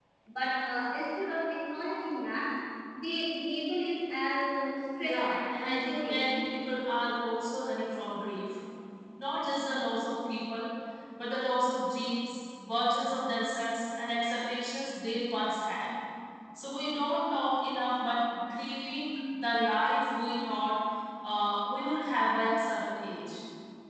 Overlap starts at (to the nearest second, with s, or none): 5 s